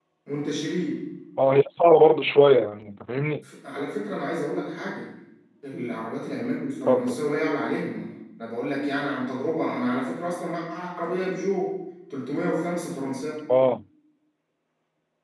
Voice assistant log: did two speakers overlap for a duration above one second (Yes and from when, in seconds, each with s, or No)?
No